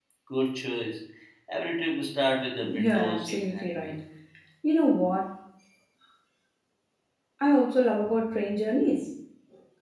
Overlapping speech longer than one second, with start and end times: 2.6-4.0

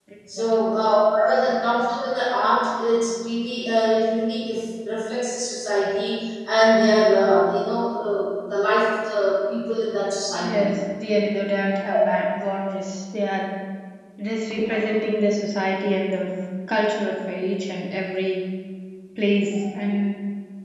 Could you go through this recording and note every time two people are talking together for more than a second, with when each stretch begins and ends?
none

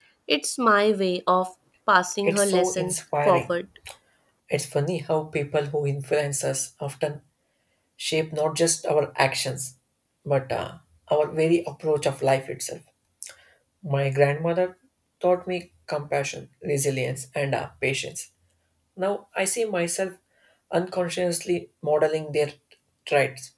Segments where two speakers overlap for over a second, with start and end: 2.2-3.5

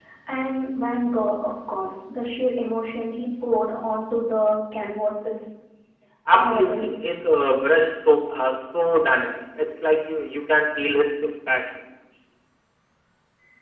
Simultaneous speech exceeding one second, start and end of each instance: none

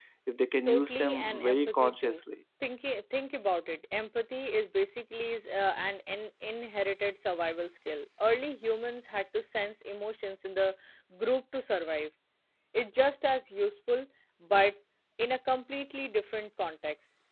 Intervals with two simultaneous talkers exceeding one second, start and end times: 0.7-2.2

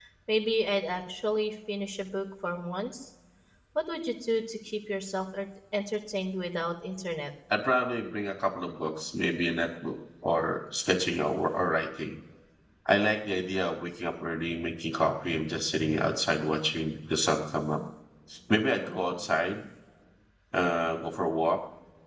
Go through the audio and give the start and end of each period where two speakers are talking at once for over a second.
none

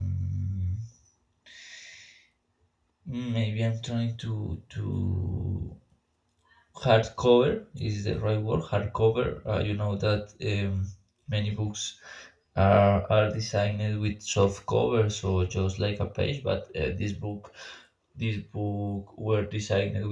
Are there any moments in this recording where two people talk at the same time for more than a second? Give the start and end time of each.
none

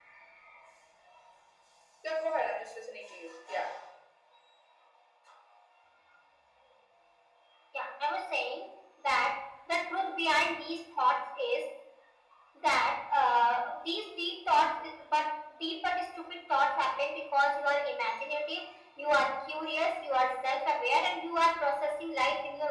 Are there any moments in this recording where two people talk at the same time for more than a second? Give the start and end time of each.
none

